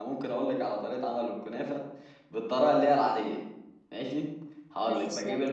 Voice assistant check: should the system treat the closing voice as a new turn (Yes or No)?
No